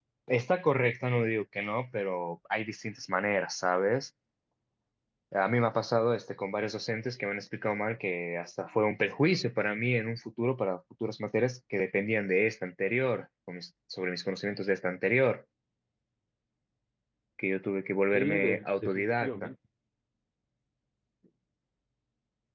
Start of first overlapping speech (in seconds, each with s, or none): 18.1 s